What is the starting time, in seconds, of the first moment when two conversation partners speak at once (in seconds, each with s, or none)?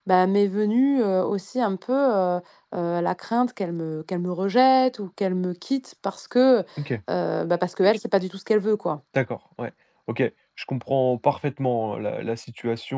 none